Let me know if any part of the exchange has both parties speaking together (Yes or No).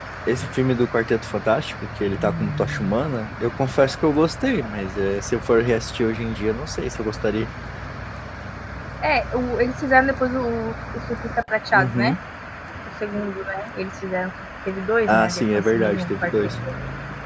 Yes